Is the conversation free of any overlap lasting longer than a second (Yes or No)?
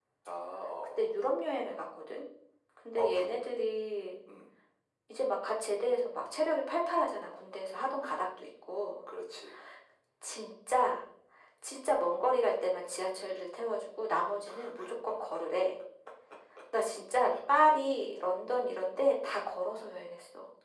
Yes